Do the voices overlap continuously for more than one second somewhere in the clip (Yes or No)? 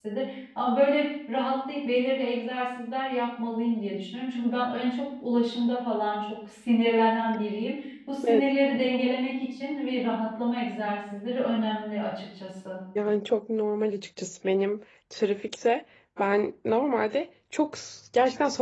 No